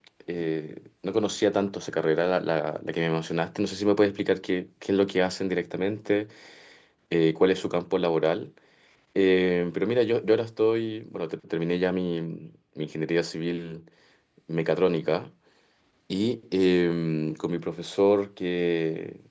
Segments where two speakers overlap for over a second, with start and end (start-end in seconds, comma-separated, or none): none